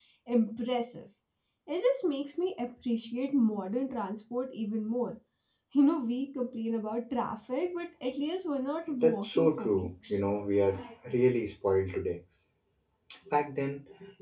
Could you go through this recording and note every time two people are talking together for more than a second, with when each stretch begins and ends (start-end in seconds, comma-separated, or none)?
9.0-10.2